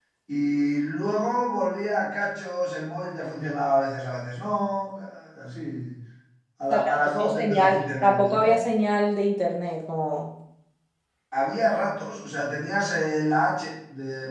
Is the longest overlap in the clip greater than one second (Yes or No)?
Yes